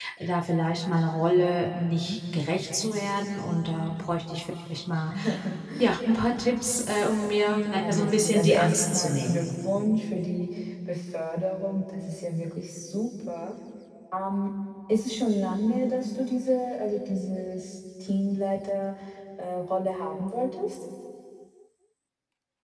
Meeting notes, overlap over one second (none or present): present